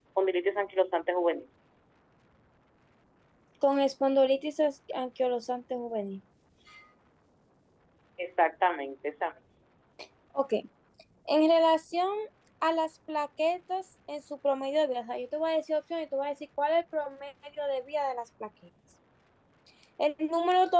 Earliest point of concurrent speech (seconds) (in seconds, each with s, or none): none